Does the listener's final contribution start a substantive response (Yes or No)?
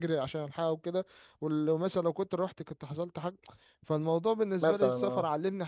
No